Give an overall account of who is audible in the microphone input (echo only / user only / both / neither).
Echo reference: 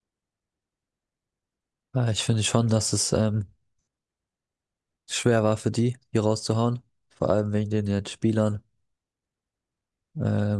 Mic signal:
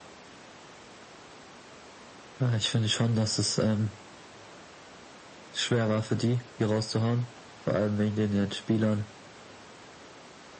echo only